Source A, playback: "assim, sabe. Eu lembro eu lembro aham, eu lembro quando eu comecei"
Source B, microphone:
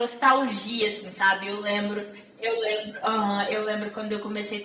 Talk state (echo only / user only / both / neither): echo only